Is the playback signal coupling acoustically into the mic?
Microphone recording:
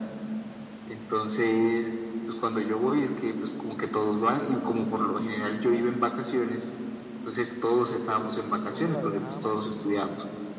Yes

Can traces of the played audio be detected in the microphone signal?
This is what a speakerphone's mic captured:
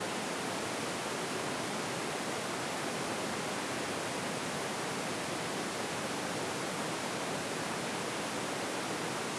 No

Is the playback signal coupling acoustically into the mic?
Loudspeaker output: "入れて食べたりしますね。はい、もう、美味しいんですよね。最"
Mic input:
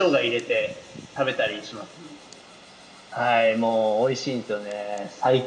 Yes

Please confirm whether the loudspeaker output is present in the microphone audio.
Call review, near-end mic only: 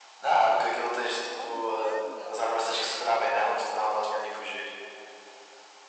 Yes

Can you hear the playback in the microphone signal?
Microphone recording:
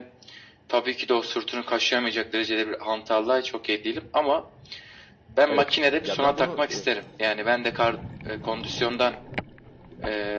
Yes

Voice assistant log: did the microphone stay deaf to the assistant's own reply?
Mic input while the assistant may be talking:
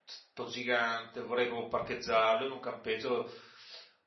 Yes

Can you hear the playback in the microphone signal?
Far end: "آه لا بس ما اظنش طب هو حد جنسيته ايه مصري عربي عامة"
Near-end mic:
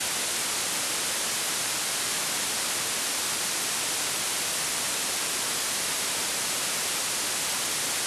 No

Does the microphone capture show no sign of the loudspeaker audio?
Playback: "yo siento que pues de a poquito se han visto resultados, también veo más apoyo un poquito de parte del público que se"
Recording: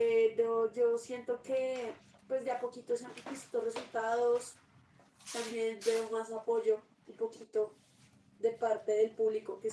No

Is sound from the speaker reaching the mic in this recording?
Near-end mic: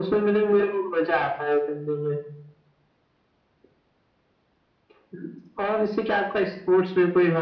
Yes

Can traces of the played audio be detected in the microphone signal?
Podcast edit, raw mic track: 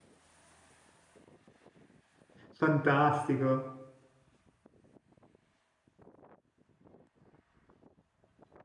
No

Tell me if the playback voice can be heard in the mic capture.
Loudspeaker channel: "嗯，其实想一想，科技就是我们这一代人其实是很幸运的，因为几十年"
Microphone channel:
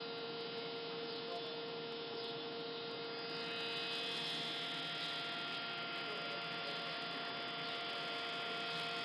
No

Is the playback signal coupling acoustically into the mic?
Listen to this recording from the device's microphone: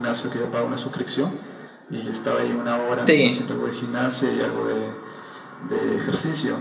Yes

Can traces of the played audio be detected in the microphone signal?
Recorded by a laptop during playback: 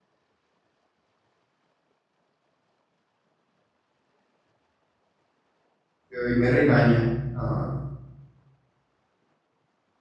No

